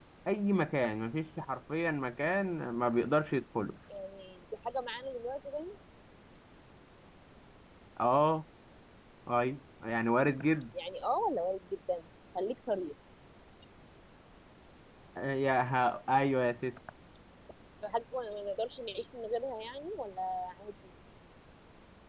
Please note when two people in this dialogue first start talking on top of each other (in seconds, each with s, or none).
none